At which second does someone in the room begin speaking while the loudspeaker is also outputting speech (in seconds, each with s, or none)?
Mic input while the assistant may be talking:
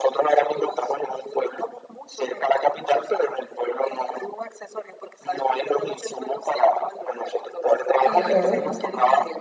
8.0 s